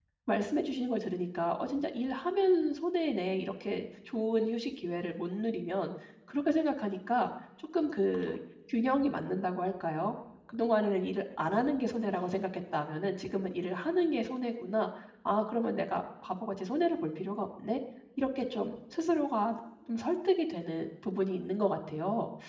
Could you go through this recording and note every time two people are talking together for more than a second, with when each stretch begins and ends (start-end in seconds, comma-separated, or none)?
none